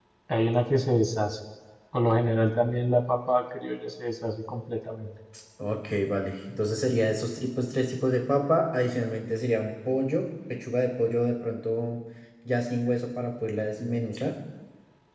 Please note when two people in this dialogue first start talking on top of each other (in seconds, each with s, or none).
none